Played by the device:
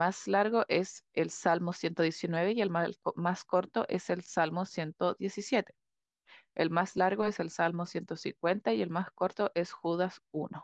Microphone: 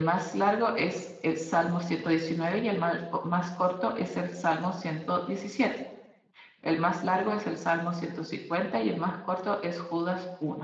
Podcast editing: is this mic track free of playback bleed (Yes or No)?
No